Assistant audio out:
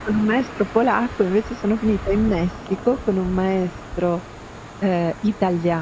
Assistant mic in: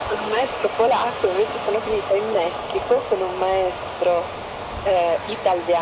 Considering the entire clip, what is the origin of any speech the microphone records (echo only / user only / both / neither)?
echo only